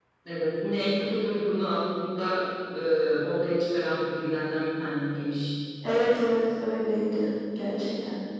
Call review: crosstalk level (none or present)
none